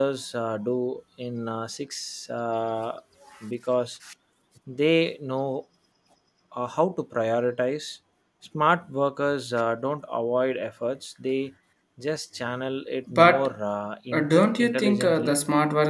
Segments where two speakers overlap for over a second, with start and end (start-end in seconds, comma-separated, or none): 14.1-15.3